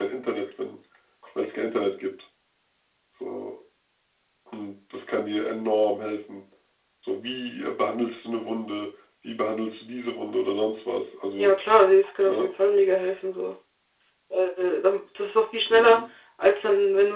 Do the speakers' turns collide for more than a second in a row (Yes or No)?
No